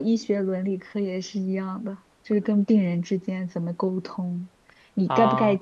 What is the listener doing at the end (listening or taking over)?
listening